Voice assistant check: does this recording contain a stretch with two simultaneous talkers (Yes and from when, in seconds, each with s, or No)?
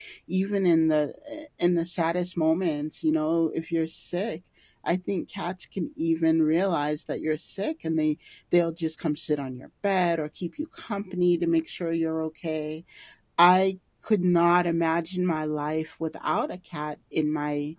No